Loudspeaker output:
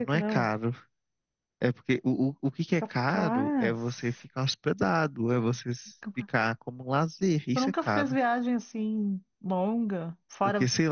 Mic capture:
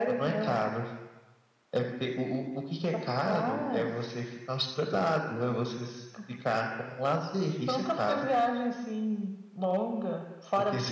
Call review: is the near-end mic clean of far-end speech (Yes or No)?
No